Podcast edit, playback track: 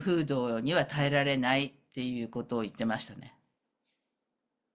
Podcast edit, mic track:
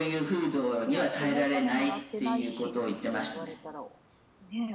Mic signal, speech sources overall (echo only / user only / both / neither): both